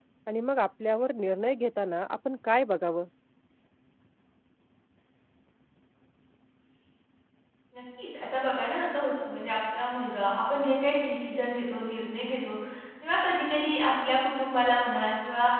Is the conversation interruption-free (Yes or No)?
Yes